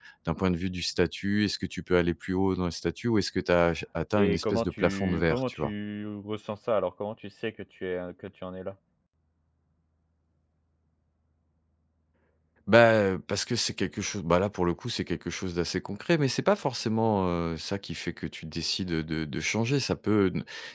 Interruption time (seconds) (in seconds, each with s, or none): 4.1 s